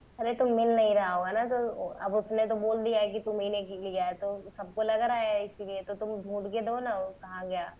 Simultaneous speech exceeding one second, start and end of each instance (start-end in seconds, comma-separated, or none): none